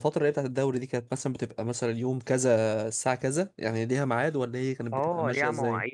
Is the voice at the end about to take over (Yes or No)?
Yes